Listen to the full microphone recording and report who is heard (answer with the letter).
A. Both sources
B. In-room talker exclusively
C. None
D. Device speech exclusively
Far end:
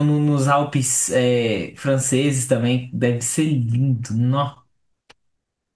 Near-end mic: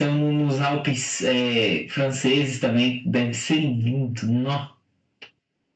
D